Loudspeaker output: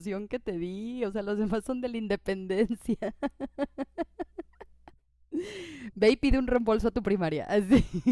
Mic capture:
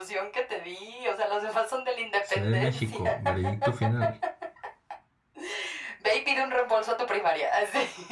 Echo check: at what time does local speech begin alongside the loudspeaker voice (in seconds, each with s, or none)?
2.2 s